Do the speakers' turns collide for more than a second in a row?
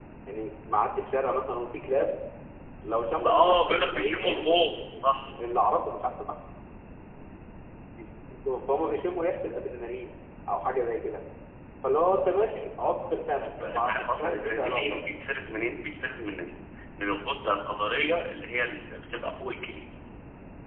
Yes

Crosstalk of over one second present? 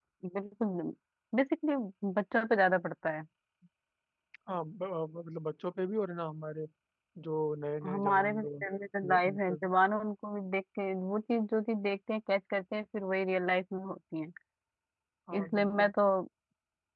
Yes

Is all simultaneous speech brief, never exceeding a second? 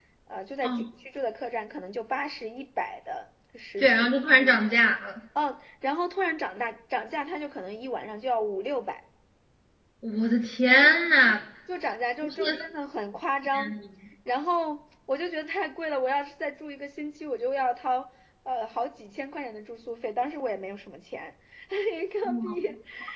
Yes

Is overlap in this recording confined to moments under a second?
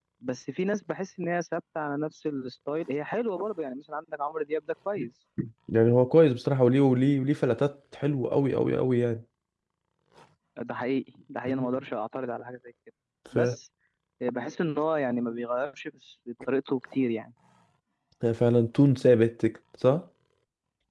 Yes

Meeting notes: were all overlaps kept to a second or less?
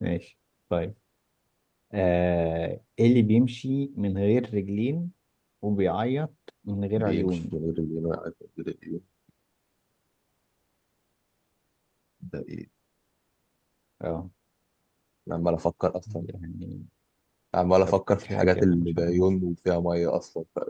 No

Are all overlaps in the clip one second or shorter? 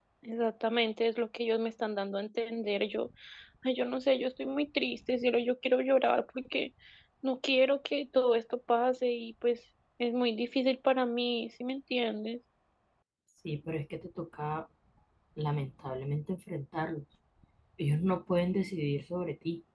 Yes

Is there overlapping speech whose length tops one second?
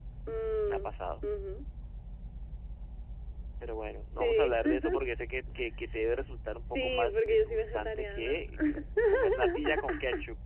Yes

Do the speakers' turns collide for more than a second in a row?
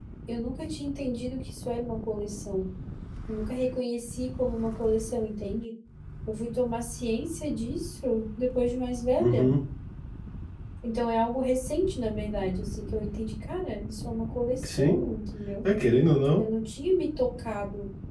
No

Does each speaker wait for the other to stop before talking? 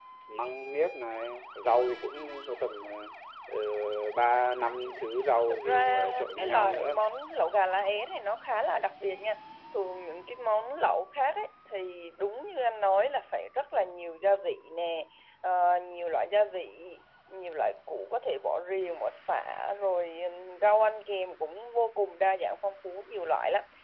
No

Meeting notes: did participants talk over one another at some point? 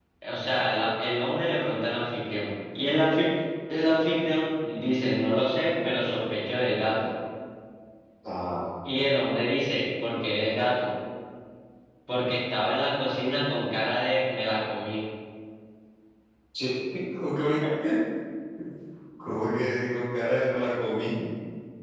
No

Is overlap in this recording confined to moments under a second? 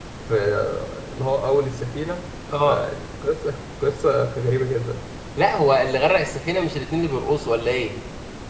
Yes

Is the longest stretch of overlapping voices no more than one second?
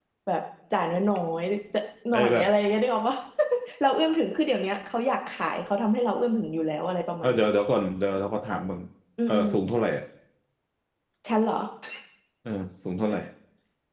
Yes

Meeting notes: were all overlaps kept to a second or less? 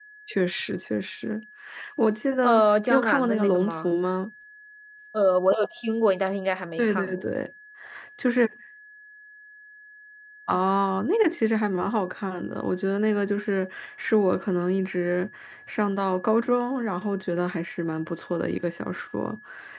No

